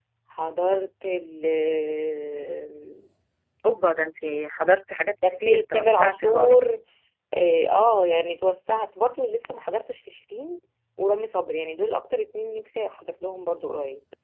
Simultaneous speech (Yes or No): Yes